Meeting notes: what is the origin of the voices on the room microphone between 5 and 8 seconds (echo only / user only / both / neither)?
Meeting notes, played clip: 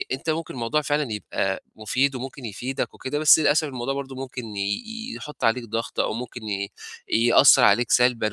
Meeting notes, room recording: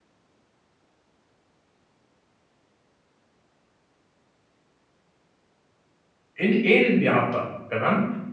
user only